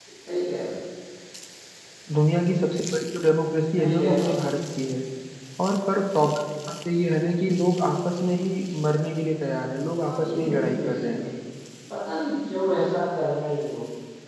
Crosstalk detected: Yes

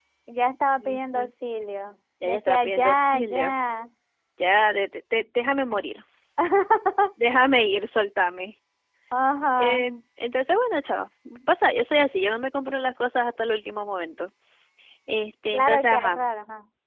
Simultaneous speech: Yes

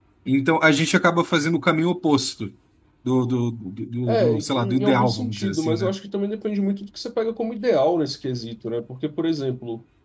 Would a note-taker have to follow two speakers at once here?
Yes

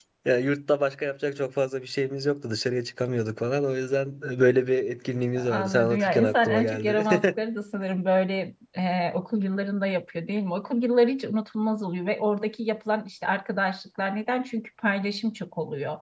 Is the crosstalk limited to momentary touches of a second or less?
No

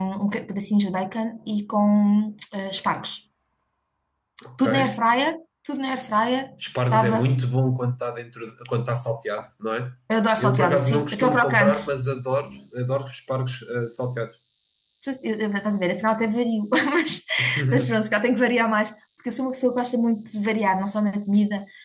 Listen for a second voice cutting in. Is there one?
Yes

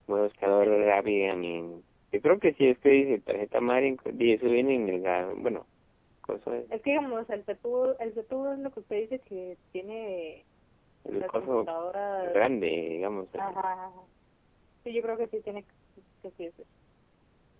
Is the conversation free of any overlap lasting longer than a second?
Yes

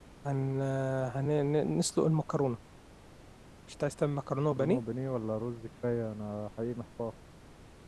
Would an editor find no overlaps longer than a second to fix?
Yes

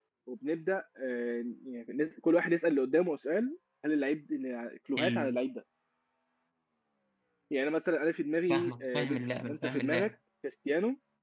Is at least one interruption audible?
Yes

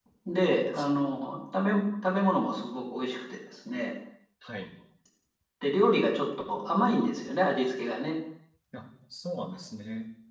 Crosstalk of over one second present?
No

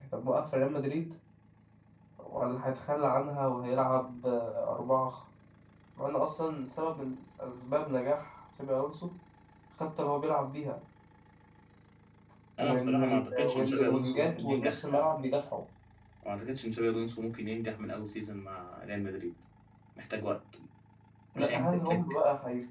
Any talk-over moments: Yes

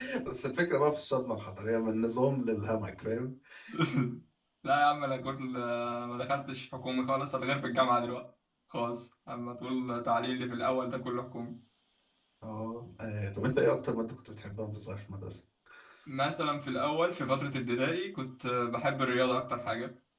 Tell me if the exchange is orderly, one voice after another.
Yes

